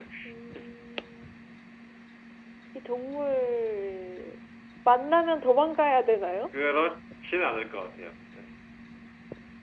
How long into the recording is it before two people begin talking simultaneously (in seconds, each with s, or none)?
none